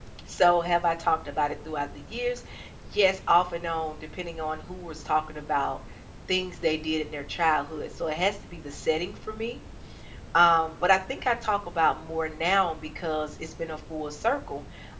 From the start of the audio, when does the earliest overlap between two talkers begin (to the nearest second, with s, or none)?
none